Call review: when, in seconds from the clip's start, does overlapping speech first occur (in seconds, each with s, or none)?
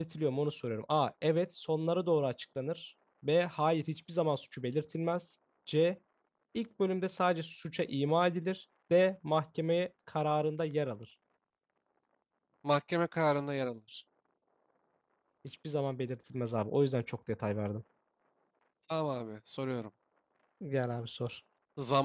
none